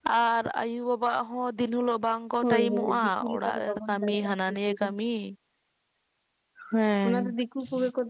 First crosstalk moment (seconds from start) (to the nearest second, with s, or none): 2 s